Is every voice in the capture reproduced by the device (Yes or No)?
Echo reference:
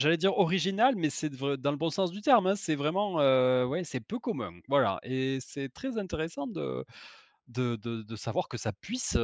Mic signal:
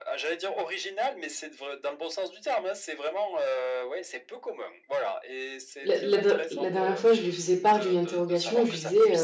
No